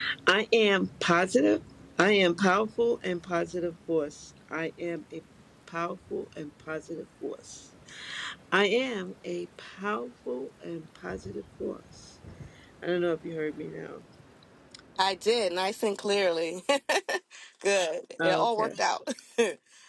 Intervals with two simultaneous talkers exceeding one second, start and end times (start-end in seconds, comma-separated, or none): none